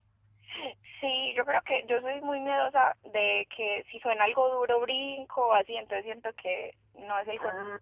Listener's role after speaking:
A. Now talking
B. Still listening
A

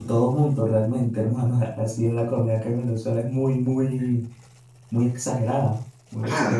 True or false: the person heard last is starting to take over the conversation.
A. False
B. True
B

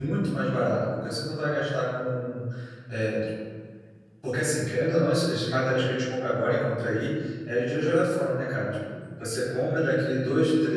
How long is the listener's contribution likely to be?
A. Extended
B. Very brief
B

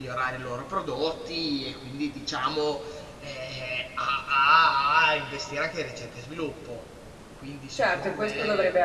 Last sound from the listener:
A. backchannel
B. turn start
B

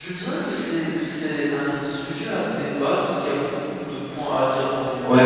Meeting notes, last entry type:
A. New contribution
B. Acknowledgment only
A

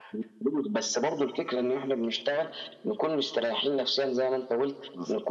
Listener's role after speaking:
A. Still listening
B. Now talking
A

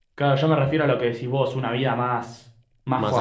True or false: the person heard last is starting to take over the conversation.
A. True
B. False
B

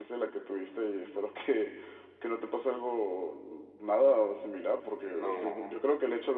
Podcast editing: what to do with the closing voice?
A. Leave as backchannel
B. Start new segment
A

